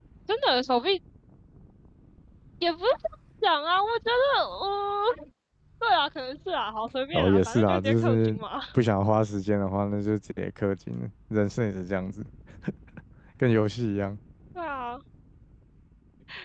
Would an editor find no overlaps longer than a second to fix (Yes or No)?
No